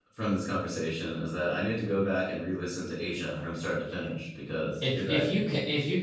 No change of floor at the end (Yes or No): No